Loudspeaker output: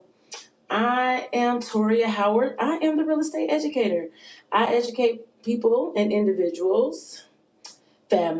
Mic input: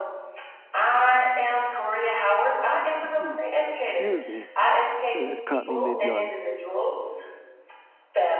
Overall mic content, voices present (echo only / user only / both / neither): both